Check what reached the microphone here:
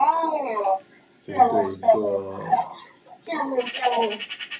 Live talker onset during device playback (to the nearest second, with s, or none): 1 s